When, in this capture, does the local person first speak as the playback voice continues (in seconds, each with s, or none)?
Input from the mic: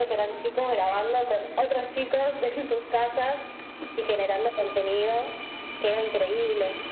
none